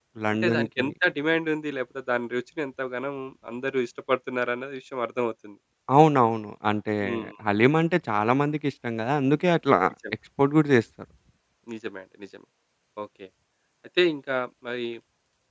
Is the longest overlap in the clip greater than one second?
No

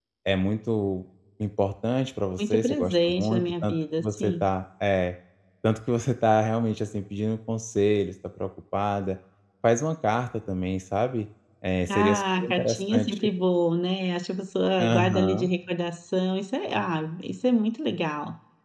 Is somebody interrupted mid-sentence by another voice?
Yes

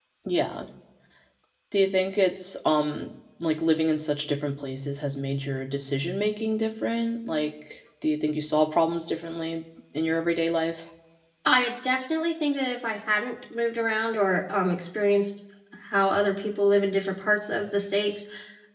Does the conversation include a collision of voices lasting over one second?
No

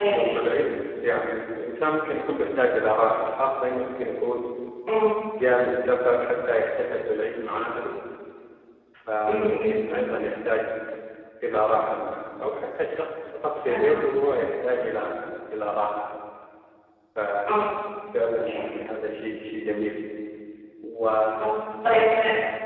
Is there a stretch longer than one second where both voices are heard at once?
No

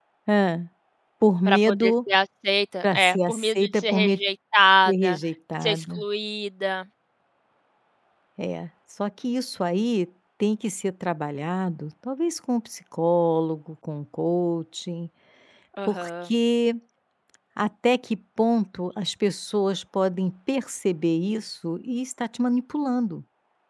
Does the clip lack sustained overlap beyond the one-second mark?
No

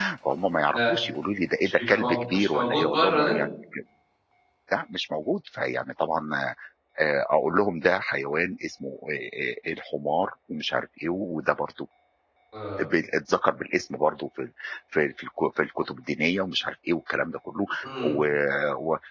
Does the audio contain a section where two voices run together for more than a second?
Yes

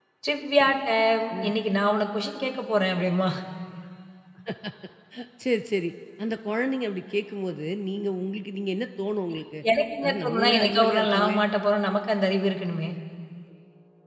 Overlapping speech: Yes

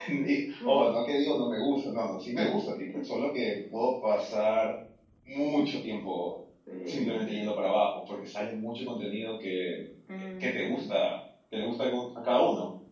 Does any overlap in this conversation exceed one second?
No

